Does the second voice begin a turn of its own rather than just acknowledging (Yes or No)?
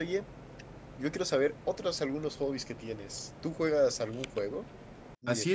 Yes